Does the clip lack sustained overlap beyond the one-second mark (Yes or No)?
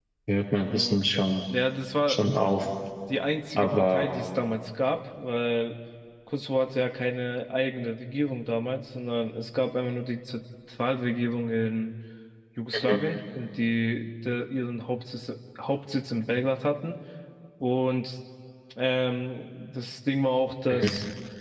Yes